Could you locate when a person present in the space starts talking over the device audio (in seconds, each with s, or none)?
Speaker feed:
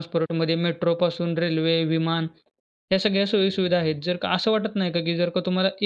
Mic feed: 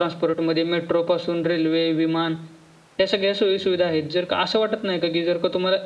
none